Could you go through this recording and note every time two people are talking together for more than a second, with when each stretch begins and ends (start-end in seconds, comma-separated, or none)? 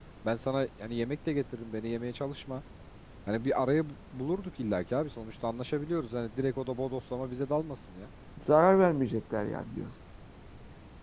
none